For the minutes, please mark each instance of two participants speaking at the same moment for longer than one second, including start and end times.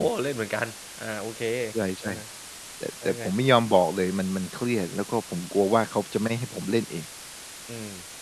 none

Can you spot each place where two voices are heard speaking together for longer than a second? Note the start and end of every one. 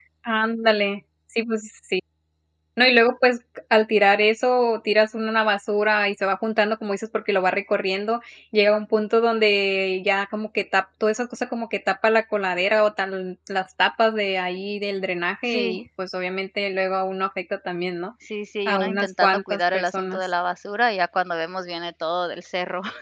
18.6-20.3

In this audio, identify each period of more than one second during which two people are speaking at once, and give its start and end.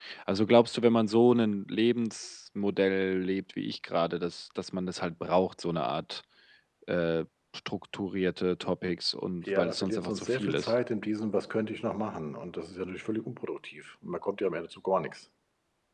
9.4-10.7

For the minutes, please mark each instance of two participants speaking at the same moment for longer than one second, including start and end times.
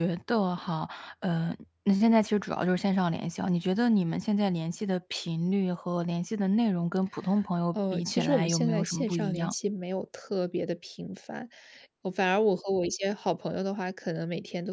7.7-9.5

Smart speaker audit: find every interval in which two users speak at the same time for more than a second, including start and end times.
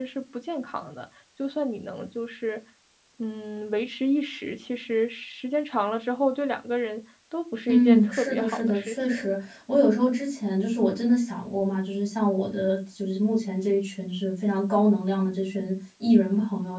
7.7-9.3

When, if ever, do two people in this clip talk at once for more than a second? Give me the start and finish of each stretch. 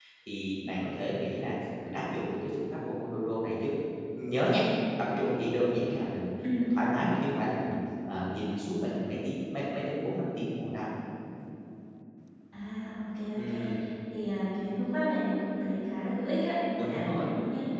none

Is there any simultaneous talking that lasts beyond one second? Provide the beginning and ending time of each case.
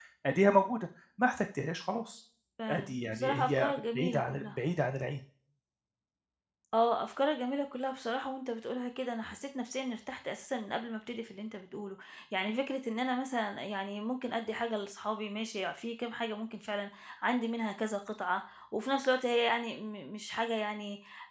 2.7-4.6

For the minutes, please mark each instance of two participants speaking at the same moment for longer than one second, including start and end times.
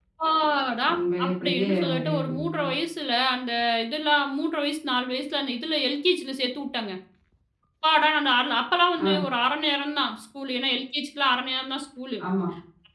1.2-2.7

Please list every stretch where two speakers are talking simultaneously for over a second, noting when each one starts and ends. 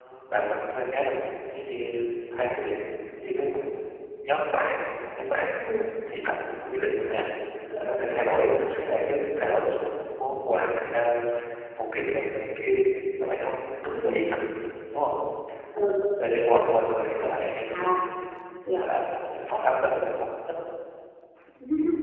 none

